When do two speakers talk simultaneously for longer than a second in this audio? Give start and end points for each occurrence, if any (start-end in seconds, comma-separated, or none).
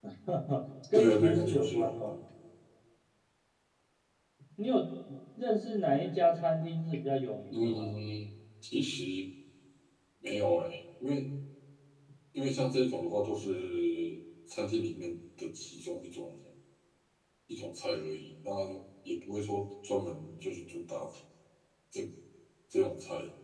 0.9-2.1